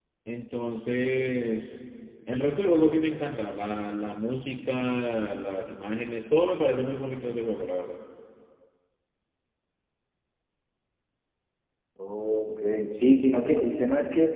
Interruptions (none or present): none